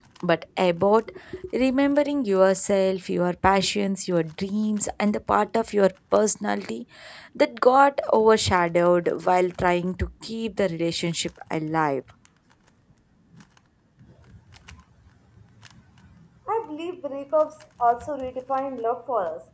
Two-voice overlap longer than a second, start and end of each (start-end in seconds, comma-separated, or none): none